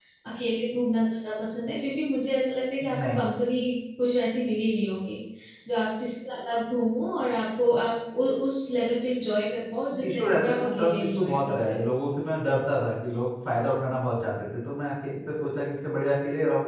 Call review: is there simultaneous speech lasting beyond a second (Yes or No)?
Yes